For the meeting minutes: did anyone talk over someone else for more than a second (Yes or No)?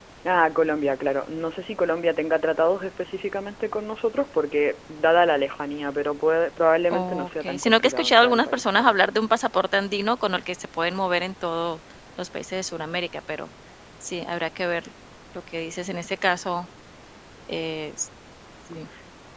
Yes